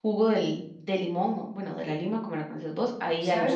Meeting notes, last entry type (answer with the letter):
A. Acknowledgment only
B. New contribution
B